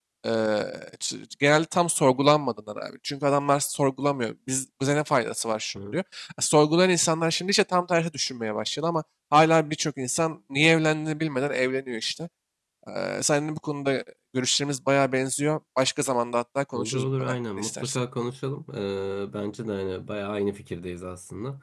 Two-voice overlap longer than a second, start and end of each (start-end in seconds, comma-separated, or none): 16.7-18.0